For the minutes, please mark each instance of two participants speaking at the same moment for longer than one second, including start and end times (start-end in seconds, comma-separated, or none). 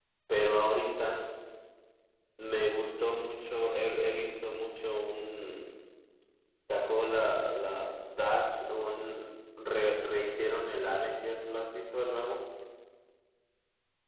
none